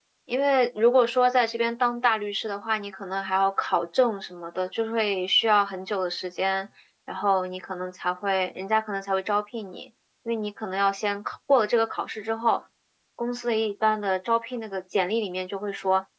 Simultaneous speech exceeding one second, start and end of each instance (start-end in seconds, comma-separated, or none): none